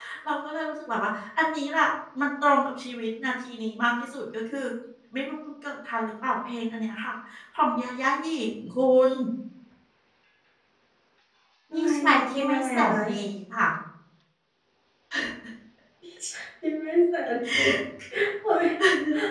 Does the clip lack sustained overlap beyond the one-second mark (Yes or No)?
No